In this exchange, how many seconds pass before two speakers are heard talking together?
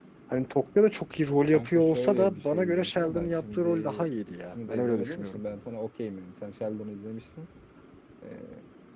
1.5 s

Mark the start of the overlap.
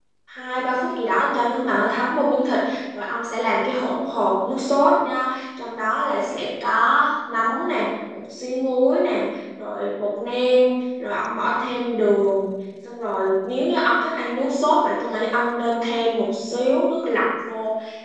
none

